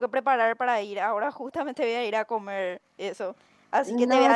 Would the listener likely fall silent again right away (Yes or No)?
No